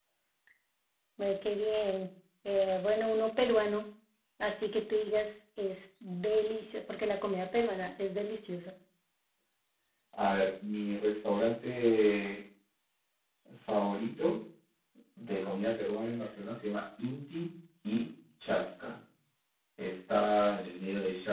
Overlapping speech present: No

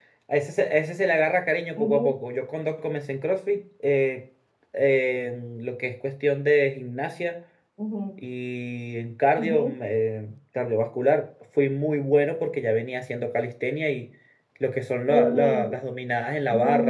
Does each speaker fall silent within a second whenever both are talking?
Yes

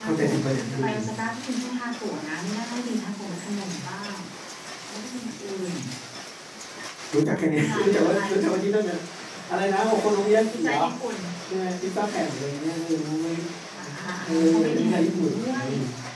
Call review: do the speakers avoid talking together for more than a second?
No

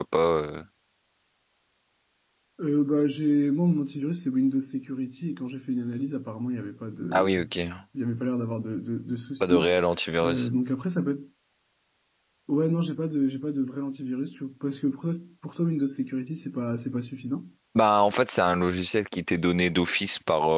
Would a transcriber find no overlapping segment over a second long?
Yes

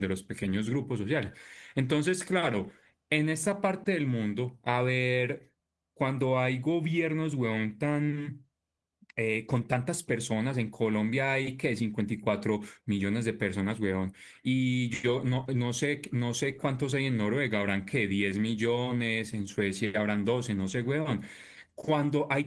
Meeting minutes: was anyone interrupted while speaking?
No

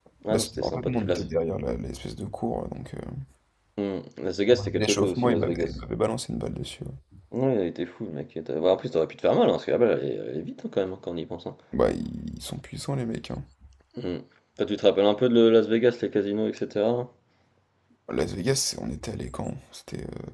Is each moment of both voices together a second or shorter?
No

